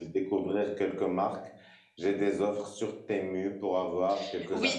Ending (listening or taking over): taking over